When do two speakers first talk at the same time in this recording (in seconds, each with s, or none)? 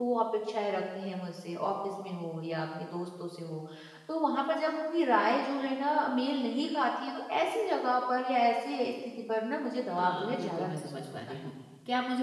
10.0 s